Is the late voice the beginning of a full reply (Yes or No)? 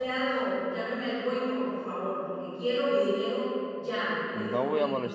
Yes